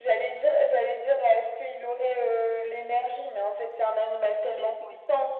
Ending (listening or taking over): listening